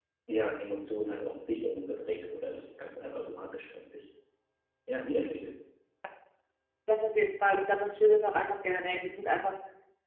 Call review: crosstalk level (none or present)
none